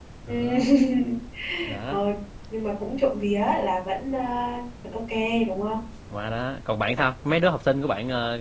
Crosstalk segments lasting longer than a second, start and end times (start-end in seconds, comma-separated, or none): none